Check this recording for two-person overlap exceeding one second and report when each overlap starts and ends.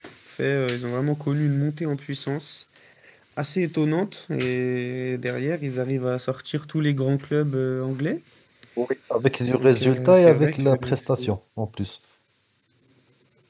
9.6-11.3

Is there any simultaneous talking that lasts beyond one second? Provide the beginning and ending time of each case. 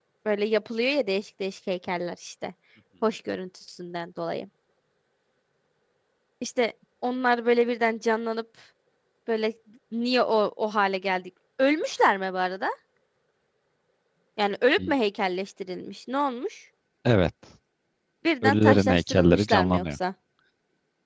18.4-20.0

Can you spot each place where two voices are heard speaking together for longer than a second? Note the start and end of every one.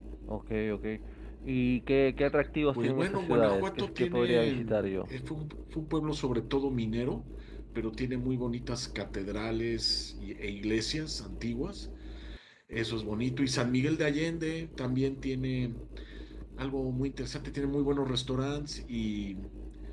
2.8-4.9

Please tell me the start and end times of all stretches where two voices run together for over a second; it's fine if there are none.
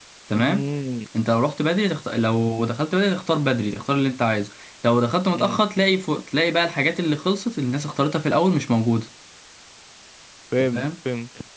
none

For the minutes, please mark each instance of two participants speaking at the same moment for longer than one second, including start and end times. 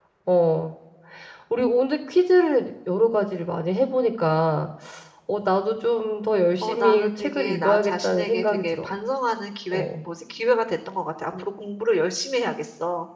6.6-8.8

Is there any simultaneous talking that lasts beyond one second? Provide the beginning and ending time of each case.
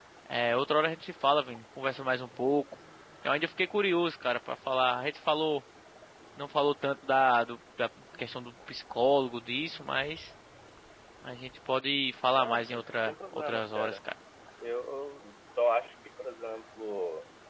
12.4-14.0

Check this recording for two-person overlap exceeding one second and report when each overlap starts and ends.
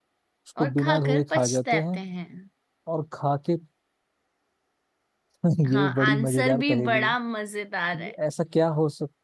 0.6-2.0, 5.7-7.2

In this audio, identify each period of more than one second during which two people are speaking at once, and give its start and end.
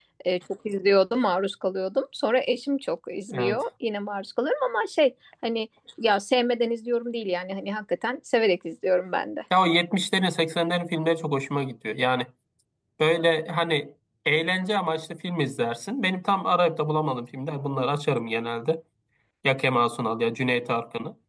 none

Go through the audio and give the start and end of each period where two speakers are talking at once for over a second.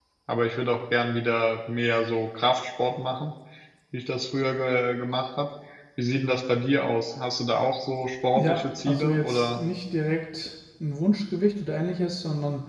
8.3-9.6

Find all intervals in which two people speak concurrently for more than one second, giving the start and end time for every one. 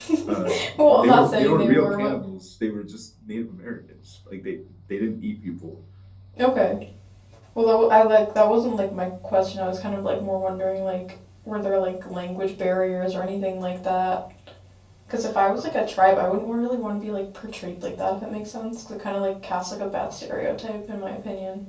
0.9-2.1

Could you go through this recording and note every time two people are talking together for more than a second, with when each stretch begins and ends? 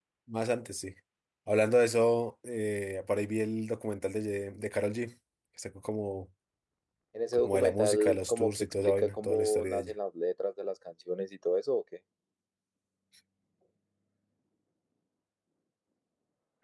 7.3-9.9

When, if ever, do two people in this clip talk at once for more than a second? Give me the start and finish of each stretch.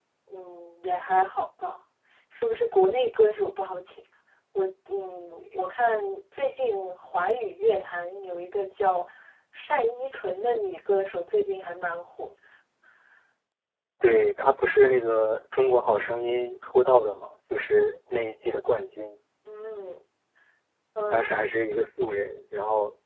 none

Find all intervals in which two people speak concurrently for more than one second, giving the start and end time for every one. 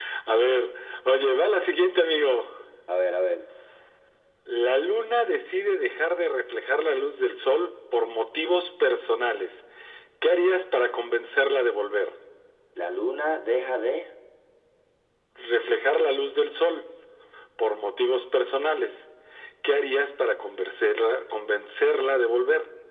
none

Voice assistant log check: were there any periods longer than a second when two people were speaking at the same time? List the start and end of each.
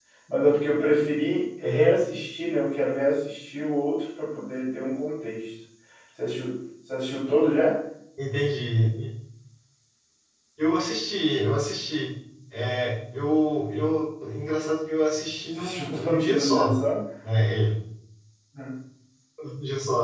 15.6-16.8

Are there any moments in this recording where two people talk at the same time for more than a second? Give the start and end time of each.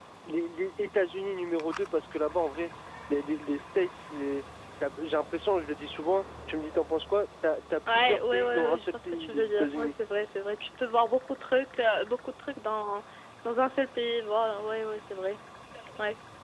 7.9-9.9

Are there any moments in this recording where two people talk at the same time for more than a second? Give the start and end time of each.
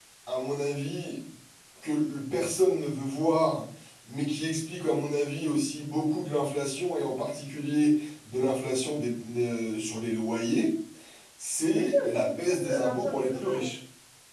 11.8-13.7

